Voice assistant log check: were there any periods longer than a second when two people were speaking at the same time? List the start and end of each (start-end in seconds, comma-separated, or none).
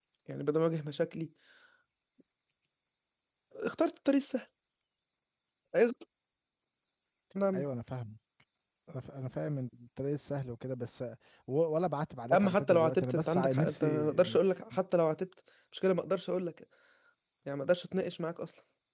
12.3-14.2